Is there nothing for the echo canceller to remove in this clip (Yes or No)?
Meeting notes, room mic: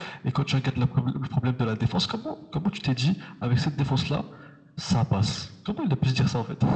No